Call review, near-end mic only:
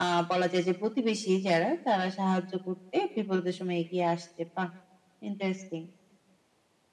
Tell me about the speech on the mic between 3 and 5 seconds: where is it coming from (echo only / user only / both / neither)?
echo only